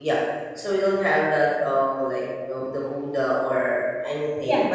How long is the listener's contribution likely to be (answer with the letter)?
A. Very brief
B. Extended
A